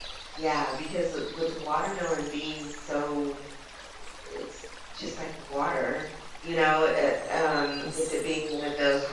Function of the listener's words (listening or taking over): listening